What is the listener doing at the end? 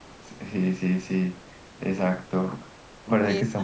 listening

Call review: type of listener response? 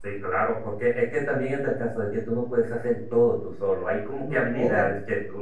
listening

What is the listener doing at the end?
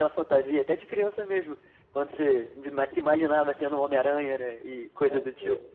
taking over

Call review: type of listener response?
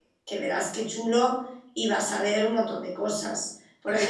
listening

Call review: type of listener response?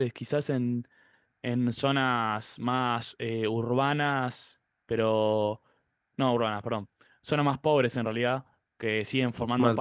listening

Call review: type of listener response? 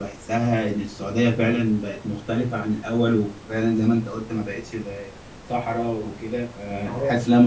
taking over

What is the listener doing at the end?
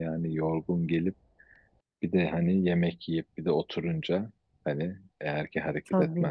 listening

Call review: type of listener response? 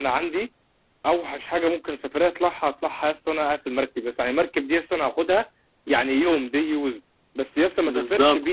listening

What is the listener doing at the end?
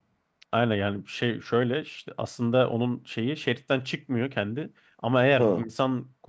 listening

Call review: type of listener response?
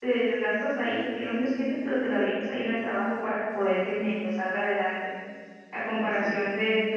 listening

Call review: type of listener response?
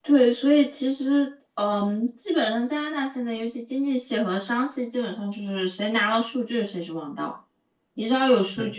listening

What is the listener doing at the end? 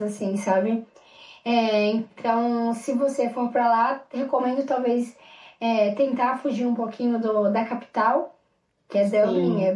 listening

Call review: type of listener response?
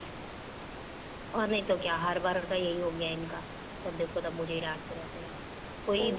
listening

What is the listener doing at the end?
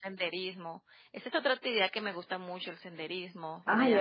taking over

